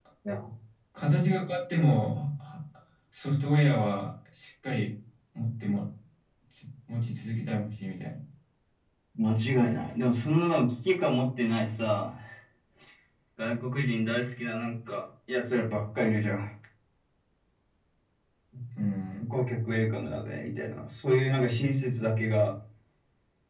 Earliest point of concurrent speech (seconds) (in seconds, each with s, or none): none